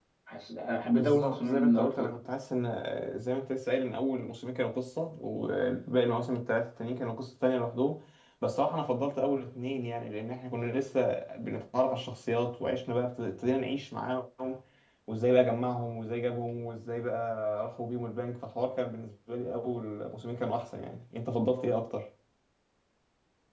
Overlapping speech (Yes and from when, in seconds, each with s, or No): Yes, from 0.9 s